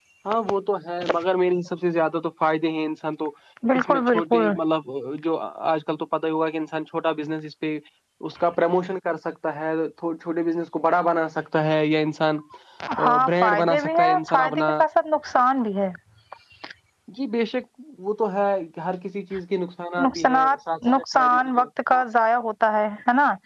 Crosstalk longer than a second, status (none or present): present